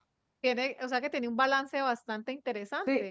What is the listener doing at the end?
taking over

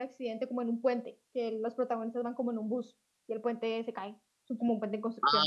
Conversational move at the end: taking over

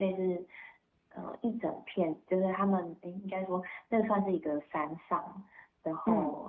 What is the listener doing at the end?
listening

